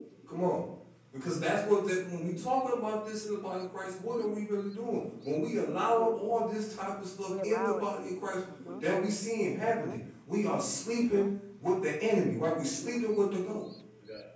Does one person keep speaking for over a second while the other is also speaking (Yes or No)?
No